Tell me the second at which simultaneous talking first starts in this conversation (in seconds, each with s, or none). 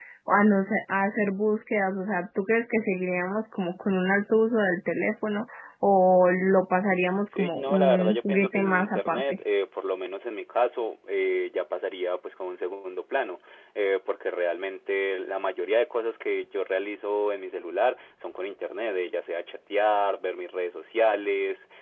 7.3 s